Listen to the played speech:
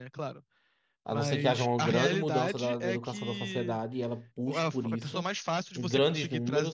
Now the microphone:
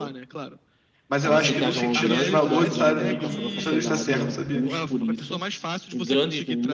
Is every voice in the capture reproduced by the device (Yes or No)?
No